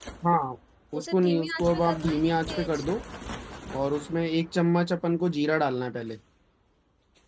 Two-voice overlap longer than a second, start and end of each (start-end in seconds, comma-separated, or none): 1.0-2.8